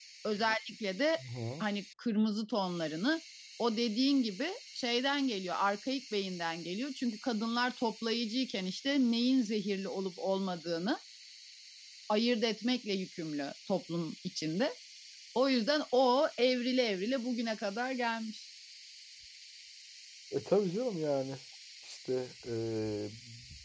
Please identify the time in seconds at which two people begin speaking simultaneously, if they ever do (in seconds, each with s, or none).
none